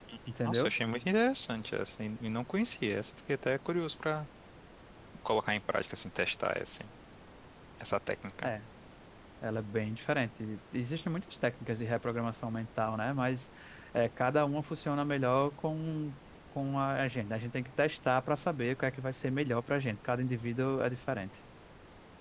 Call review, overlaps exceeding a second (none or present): none